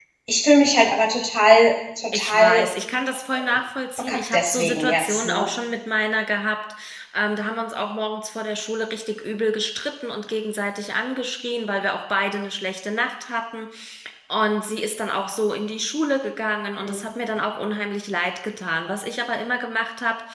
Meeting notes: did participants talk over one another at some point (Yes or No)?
Yes